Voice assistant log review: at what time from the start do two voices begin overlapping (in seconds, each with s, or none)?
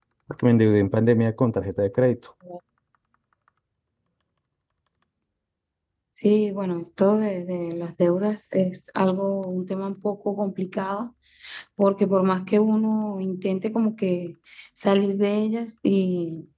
none